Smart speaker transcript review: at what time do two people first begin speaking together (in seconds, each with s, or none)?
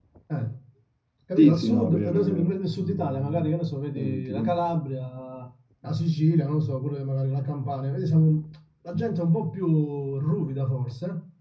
1.4 s